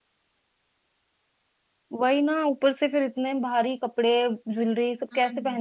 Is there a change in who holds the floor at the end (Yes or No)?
No